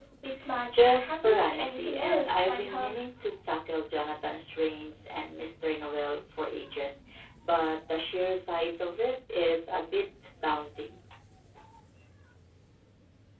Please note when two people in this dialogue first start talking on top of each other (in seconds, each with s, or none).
0.7 s